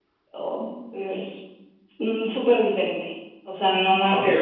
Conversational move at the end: taking over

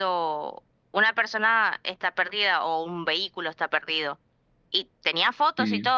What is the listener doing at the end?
listening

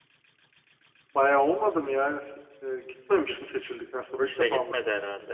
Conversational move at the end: taking over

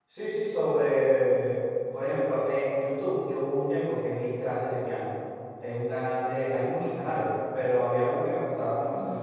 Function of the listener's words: listening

